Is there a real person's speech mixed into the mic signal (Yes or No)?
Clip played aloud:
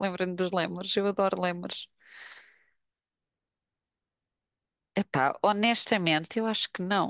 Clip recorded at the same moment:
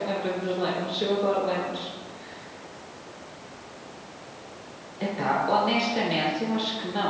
No